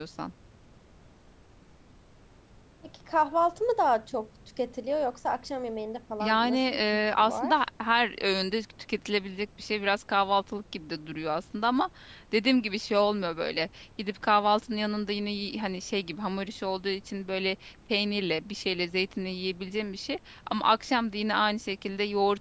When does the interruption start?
6.2 s

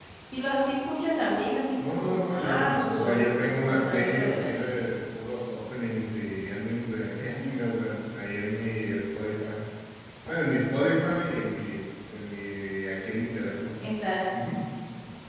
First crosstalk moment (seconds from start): 1.8 s

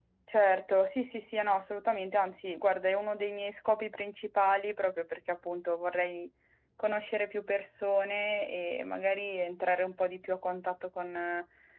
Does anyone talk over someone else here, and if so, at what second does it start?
none

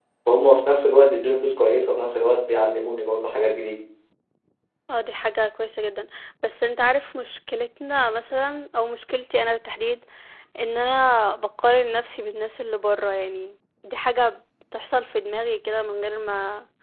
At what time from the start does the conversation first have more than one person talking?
none

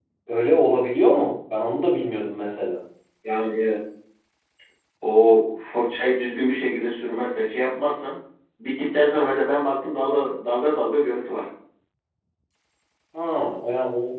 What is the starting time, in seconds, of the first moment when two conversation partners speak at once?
none

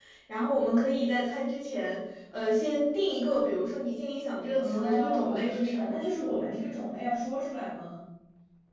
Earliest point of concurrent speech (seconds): 4.6 s

